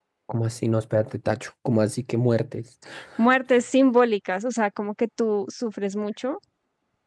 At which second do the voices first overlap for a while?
none

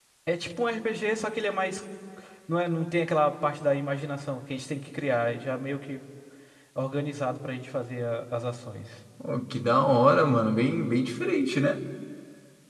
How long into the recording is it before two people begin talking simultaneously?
none

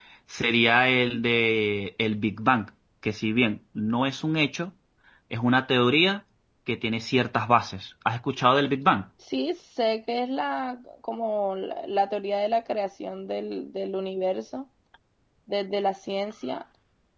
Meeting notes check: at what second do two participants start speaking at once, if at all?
none

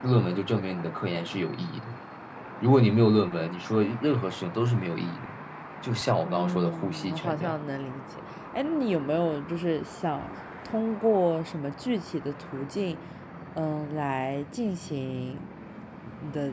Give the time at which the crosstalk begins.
6.2 s

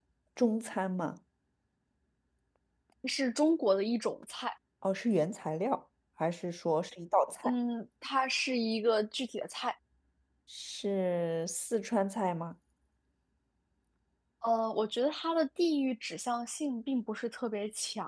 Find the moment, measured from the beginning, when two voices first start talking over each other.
none

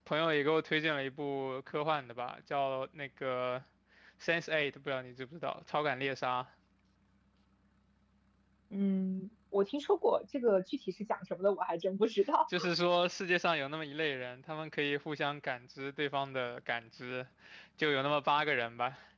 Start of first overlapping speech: none

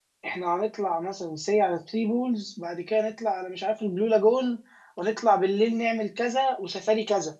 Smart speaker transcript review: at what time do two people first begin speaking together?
none

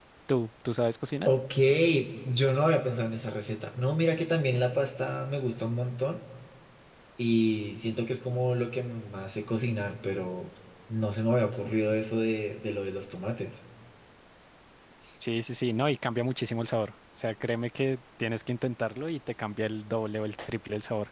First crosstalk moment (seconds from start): none

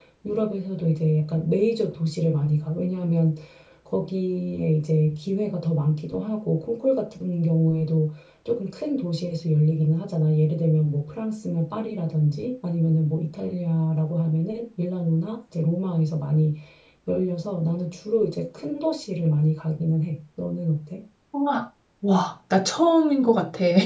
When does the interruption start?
none

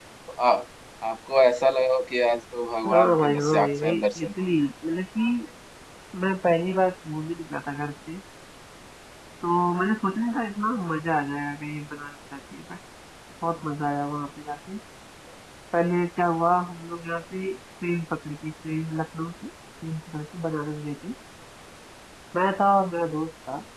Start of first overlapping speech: 2.8 s

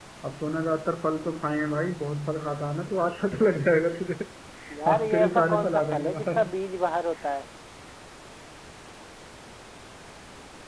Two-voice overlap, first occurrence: 4.9 s

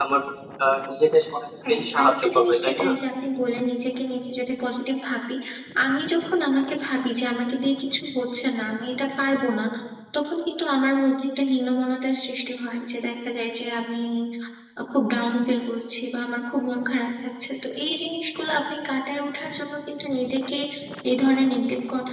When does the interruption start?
1.6 s

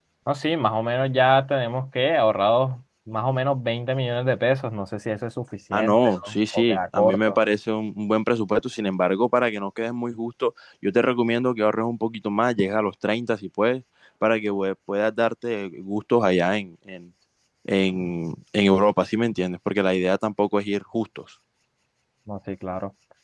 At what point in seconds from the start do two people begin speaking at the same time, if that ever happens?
5.7 s

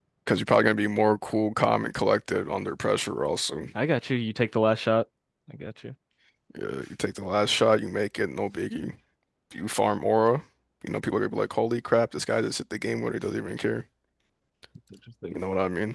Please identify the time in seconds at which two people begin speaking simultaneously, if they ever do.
none

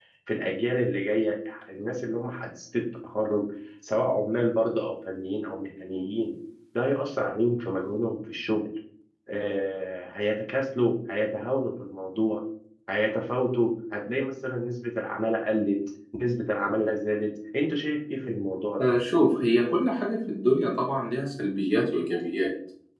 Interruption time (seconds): none

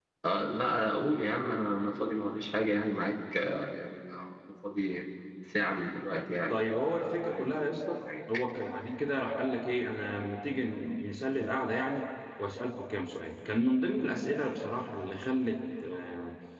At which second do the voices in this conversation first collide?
6.5 s

